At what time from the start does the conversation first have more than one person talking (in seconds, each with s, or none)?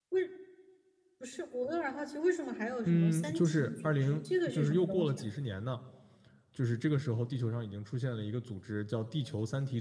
2.8 s